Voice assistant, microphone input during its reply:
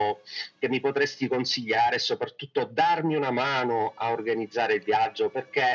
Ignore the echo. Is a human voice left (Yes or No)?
No